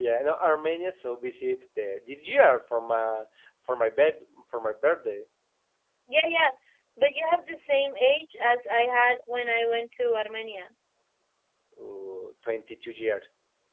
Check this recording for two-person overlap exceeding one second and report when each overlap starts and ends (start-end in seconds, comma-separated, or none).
none